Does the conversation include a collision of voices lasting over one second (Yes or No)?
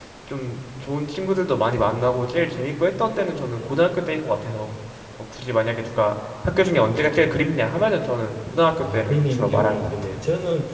Yes